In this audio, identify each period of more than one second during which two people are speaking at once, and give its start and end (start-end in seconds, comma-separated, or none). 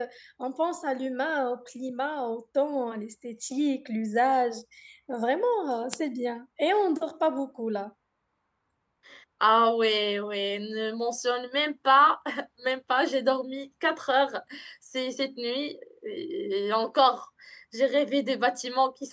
none